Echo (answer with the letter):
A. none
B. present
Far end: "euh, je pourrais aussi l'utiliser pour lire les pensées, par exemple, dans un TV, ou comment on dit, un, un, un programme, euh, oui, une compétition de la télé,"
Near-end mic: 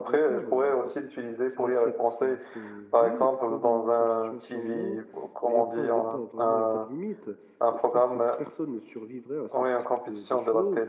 B